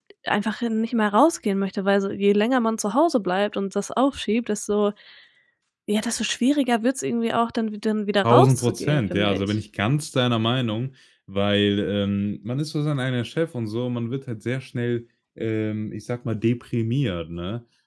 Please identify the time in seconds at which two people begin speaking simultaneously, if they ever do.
8.2 s

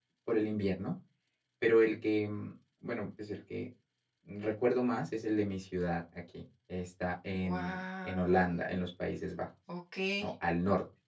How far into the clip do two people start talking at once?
7.3 s

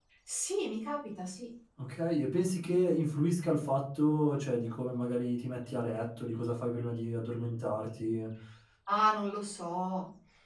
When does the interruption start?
none

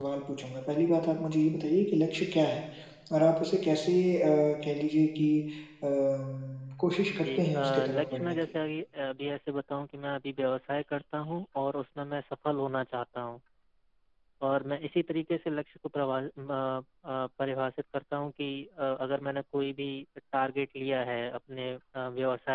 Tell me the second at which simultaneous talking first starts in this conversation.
7.1 s

